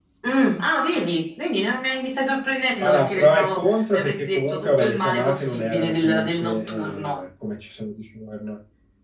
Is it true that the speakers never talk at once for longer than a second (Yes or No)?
No